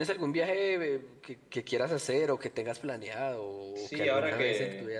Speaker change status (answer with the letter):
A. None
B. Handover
B